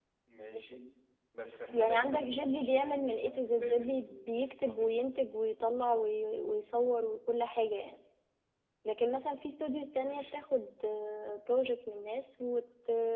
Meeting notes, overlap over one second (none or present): present